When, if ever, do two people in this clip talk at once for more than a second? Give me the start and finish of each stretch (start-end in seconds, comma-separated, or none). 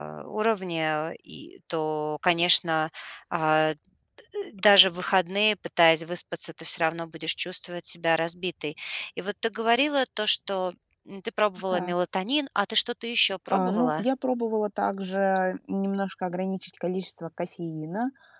none